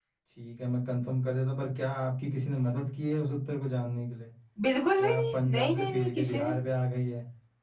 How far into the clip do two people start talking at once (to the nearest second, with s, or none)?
5 s